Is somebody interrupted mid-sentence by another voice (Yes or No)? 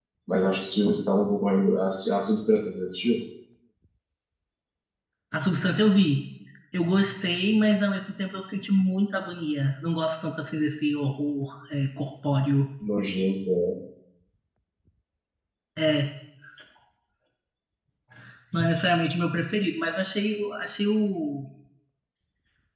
No